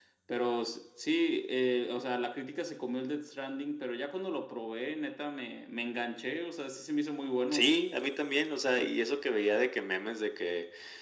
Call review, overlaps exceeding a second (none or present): none